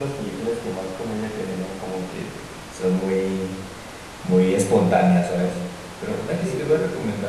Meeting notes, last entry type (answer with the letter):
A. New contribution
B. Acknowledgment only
B